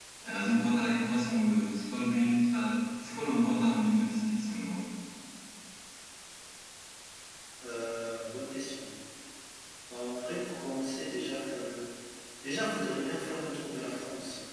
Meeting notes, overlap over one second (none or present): none